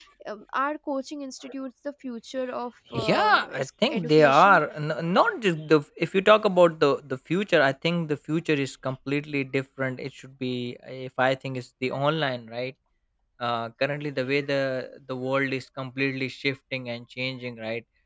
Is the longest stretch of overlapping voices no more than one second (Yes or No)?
No